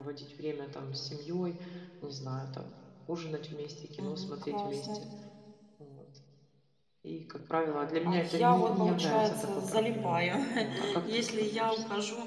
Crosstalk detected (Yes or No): Yes